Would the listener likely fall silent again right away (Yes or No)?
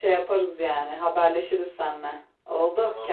No